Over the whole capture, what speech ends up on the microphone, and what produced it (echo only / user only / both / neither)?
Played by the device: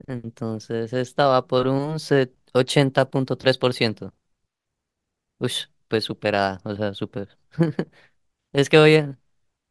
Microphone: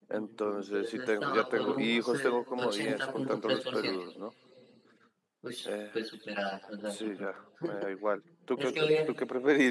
both